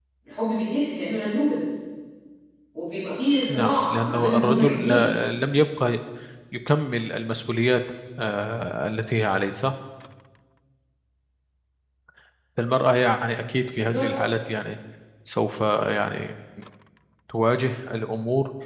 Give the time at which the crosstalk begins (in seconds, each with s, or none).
3.5 s